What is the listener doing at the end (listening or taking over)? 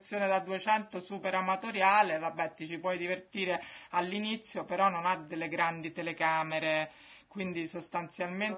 taking over